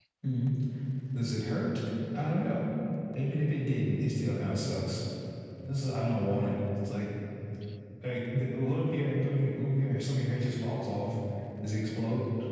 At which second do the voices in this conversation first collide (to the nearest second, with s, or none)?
none